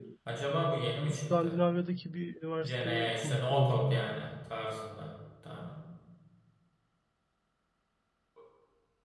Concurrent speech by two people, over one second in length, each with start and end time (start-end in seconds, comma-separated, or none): 2.6-4.0